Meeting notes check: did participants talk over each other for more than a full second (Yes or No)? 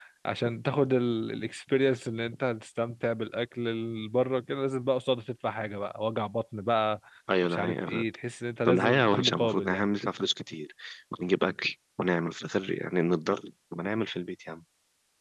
Yes